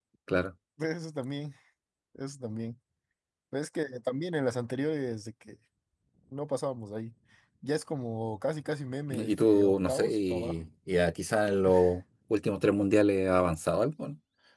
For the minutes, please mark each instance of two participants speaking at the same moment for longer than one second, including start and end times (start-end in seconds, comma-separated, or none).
9.1-10.5